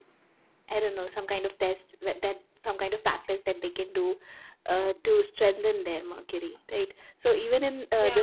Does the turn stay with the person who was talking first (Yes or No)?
Yes